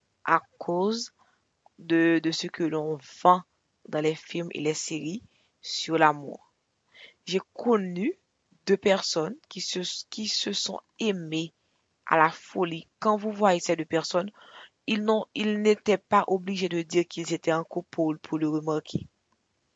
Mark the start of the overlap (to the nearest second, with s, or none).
none